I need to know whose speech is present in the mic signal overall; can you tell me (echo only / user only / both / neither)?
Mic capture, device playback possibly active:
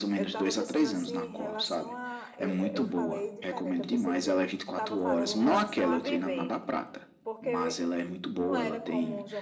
both